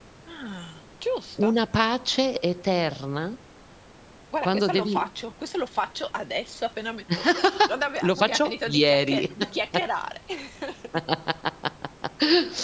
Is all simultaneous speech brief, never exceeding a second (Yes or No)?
No